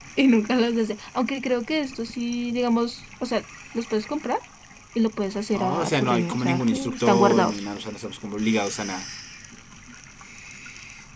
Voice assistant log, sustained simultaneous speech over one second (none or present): present